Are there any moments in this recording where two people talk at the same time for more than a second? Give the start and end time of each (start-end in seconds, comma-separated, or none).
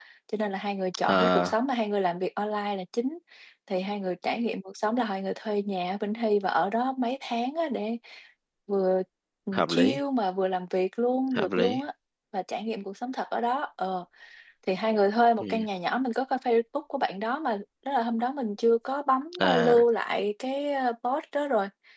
none